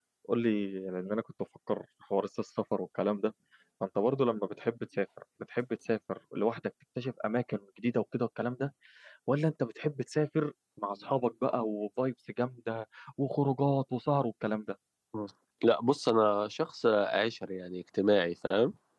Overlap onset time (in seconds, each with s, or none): none